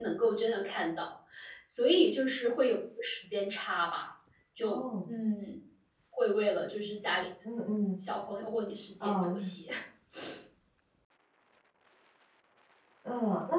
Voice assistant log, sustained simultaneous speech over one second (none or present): none